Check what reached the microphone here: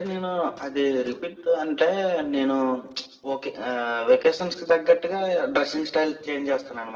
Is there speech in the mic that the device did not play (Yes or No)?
No